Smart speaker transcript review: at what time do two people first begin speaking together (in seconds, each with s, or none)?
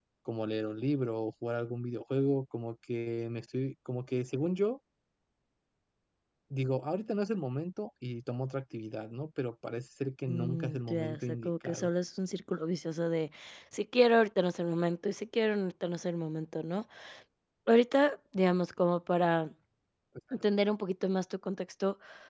10.3 s